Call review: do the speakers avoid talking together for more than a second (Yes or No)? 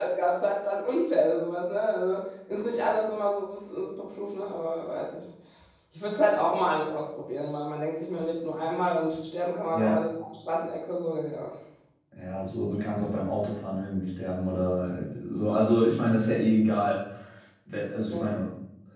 Yes